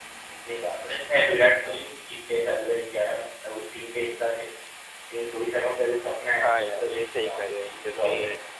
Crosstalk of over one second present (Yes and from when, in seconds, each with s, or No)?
Yes, from 6.4 s